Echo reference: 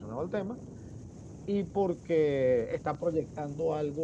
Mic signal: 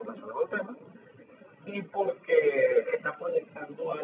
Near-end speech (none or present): none